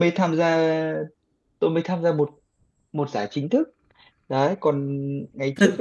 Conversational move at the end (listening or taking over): taking over